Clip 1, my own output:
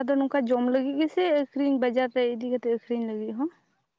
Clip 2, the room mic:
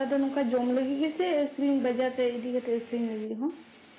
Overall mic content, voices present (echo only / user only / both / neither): echo only